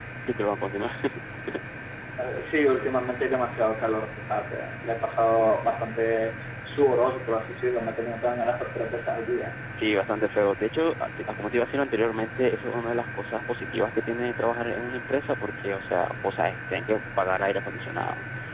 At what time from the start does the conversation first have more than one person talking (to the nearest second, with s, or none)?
none